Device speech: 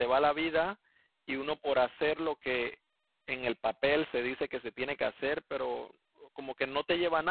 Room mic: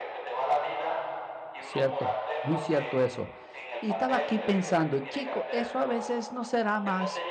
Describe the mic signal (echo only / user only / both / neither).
both